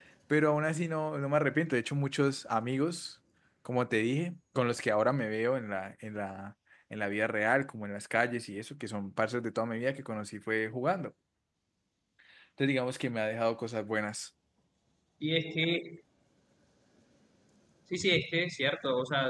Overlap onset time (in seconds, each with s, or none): none